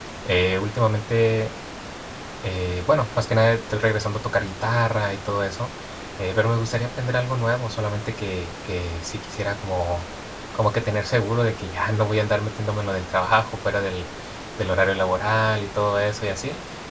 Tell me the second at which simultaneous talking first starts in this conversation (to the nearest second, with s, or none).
none